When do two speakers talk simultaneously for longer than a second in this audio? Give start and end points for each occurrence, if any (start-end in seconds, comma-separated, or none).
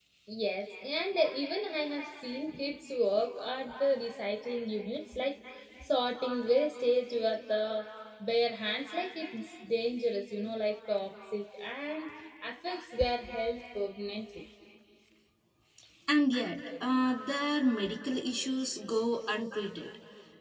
none